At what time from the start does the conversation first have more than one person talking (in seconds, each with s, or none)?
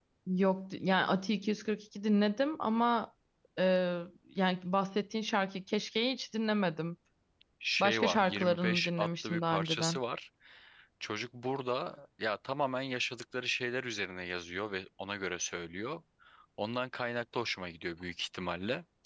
7.8 s